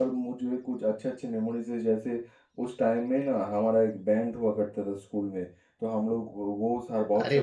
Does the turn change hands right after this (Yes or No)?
No